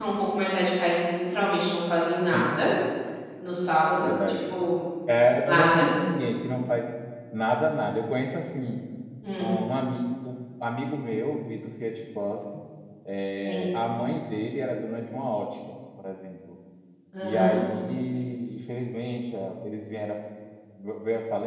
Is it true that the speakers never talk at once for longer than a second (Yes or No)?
Yes